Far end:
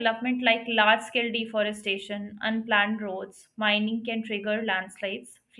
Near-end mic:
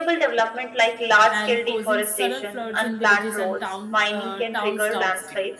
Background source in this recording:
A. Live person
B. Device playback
A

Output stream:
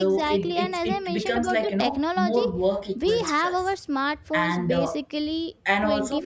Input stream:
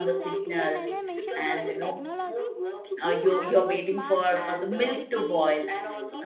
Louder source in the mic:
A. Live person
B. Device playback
A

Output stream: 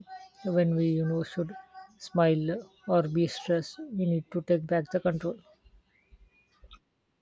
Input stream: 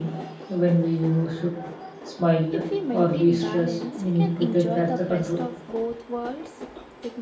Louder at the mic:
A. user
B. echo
B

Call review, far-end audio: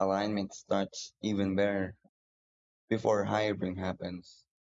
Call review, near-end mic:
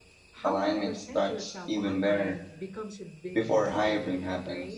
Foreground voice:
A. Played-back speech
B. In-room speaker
A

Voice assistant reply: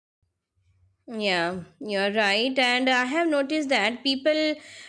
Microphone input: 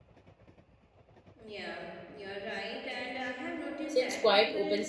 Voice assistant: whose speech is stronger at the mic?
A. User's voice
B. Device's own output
A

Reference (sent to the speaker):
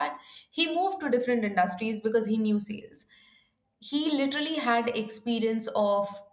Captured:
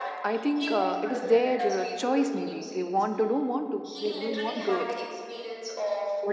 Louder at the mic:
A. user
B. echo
A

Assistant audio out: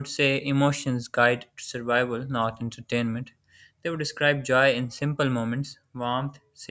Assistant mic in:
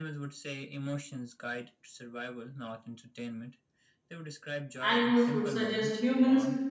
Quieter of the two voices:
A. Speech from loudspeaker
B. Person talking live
A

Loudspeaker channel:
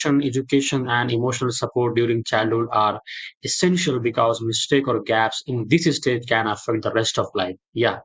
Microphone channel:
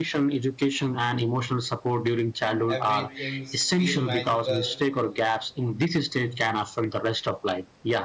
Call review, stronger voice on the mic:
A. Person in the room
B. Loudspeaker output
B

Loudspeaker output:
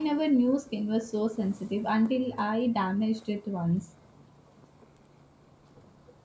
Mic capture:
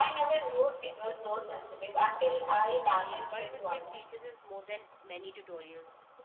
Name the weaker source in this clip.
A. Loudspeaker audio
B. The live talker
B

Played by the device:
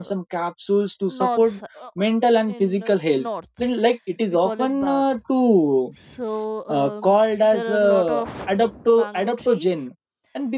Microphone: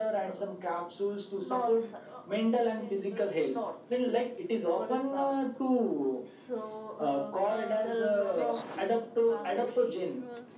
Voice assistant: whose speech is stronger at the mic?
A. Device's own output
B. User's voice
A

